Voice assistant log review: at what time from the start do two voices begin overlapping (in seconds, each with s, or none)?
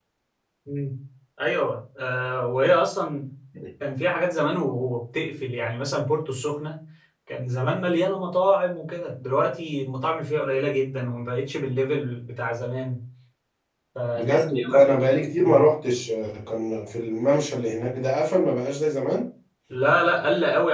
14.2 s